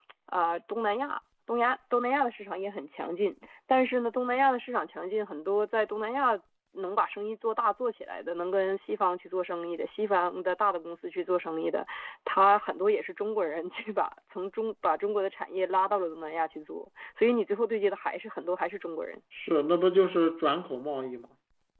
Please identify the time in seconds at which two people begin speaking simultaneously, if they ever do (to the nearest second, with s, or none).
none